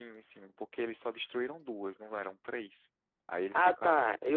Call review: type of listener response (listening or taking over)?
taking over